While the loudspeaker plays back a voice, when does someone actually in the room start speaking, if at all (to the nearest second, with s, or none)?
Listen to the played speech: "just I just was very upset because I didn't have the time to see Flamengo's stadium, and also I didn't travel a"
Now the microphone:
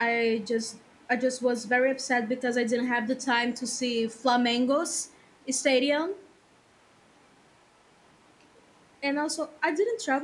none